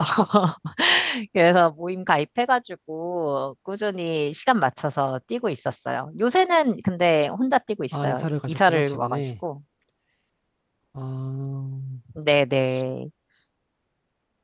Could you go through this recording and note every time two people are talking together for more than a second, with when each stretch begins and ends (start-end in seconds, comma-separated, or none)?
8.0-9.3